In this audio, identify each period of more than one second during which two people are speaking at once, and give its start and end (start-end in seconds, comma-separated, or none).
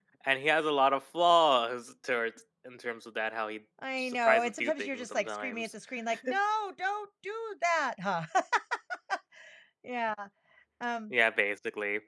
4.0-5.7